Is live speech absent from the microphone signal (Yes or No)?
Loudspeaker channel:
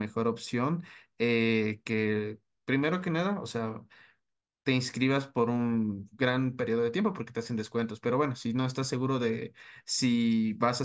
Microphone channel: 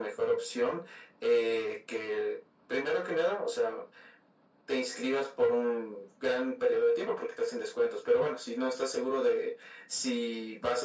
Yes